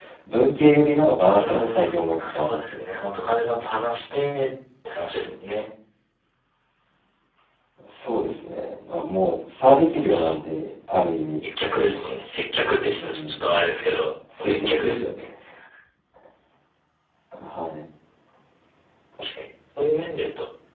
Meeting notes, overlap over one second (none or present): present